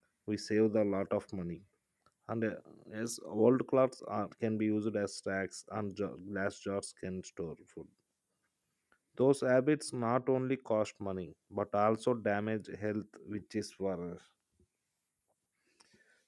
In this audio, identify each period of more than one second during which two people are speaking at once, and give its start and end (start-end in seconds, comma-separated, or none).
none